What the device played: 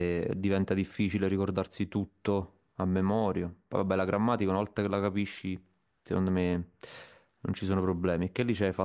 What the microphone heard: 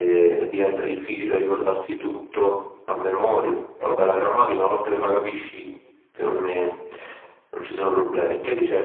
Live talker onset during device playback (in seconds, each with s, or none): none